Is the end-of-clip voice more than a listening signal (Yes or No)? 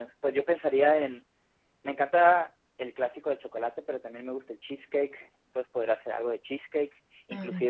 No